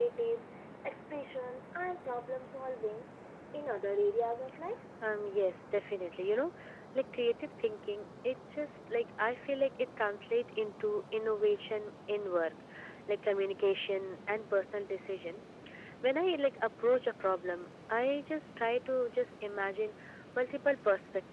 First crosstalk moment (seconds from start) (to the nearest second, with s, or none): none